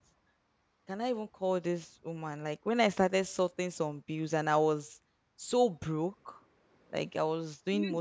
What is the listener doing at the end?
listening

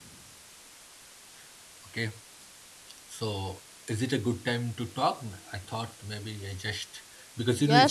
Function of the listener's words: taking over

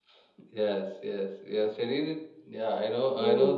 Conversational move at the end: listening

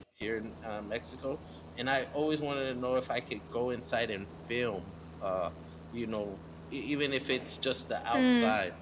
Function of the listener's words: taking over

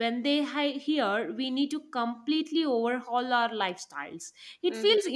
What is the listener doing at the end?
listening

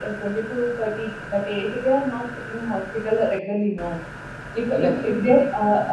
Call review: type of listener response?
listening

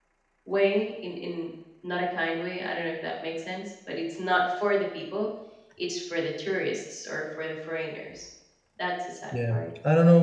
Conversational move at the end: taking over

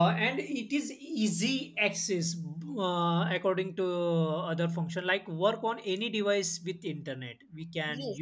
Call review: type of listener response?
taking over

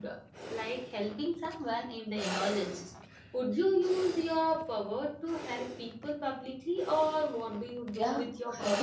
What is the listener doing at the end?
taking over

